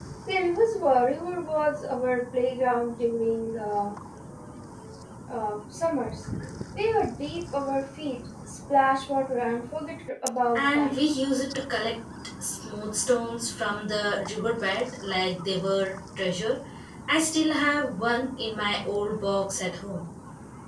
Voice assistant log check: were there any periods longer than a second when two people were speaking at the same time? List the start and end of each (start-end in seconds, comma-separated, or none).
none